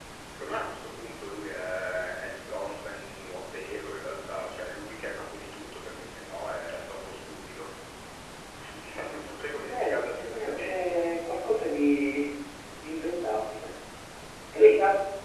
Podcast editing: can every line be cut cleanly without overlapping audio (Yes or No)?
No